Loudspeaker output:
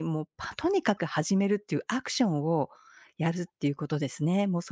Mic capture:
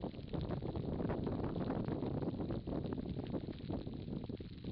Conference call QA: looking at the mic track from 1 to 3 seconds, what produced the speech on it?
neither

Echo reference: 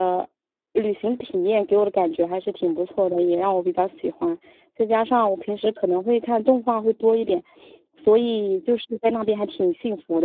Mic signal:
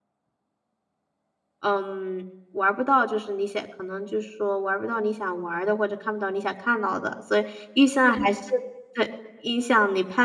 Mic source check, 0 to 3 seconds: user only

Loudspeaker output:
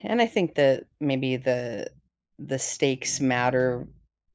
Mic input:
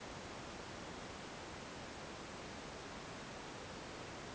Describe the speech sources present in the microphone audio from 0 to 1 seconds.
neither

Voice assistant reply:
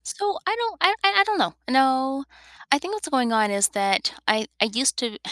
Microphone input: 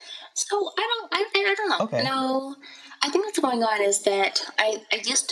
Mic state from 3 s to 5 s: echo only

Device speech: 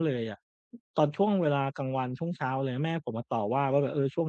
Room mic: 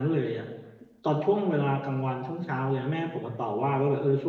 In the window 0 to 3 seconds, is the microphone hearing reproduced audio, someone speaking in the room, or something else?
echo only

